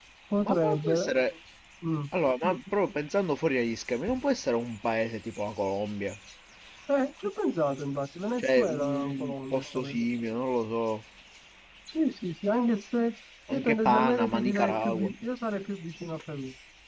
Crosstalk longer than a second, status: present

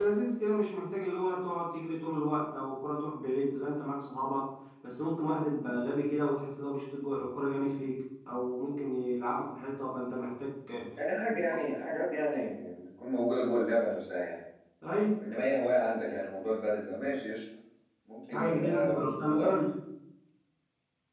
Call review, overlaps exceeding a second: present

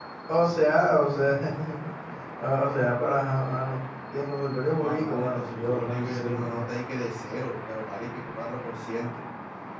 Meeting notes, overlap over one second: present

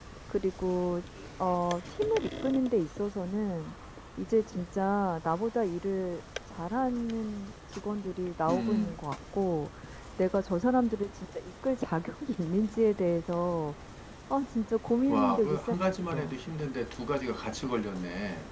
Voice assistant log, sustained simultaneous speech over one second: present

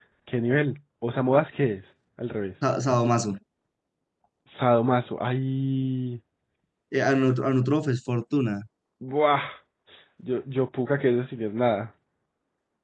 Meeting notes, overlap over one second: none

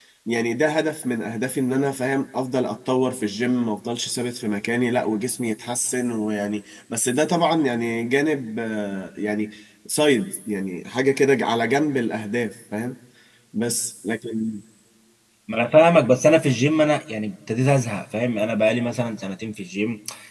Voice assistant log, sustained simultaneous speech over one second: none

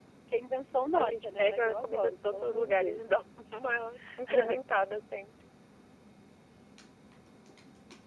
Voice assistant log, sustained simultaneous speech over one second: present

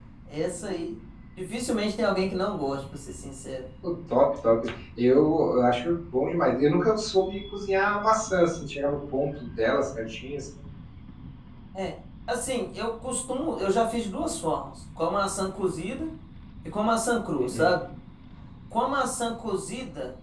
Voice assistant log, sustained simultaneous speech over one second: none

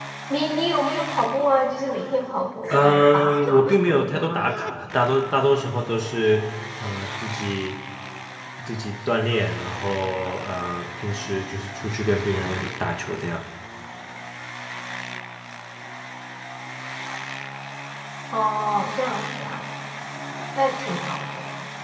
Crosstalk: present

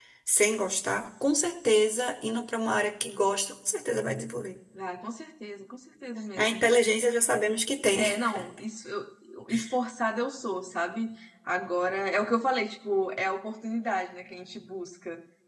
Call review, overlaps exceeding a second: none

